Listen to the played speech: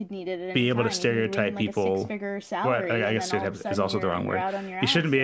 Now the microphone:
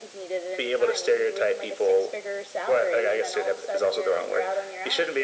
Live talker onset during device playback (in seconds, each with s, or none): none